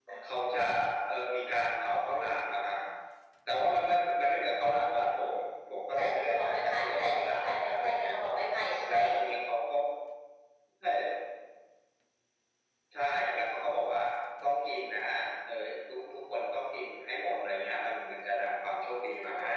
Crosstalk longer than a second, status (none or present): present